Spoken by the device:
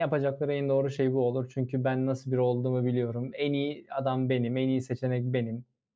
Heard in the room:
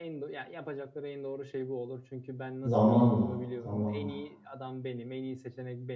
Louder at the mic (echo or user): user